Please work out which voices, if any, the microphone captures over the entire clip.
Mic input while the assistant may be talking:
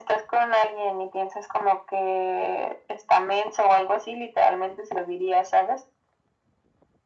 echo only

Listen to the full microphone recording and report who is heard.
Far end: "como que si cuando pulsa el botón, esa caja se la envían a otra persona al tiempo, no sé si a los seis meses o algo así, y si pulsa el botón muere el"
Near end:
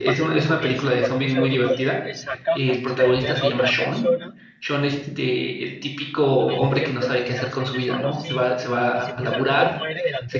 both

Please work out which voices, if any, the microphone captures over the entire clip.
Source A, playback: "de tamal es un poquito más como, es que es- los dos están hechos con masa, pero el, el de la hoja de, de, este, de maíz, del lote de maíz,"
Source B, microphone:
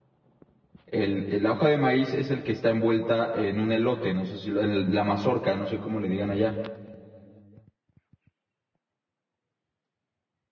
user only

